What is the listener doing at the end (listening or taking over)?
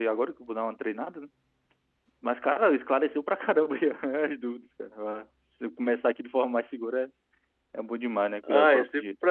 taking over